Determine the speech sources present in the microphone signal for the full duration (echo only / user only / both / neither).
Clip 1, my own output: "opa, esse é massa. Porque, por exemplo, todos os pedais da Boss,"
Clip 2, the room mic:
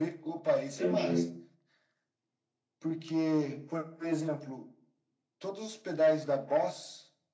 both